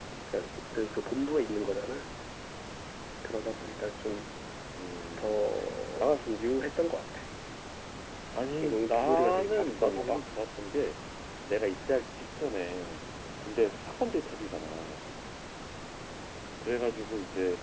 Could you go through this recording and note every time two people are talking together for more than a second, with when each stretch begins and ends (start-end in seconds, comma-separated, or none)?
8.6-10.2